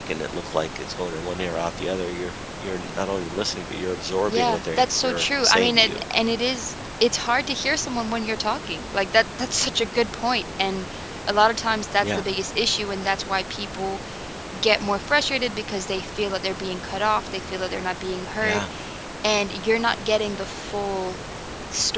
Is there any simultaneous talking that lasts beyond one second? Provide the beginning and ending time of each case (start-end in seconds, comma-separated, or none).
4.3-5.9